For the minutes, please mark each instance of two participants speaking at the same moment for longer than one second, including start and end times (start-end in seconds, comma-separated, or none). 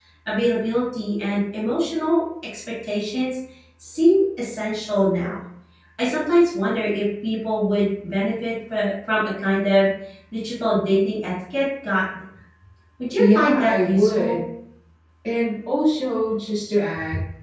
13.2-14.4